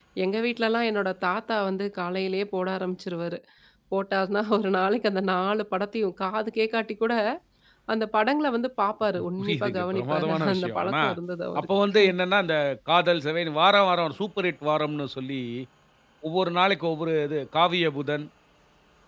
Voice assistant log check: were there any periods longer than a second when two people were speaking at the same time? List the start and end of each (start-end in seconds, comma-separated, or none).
9.4-10.9